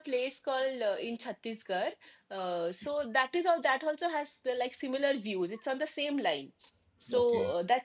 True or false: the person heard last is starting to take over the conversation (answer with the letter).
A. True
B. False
B